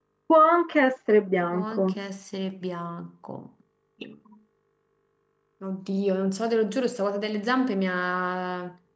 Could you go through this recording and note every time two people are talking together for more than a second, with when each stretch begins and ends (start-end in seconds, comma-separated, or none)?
none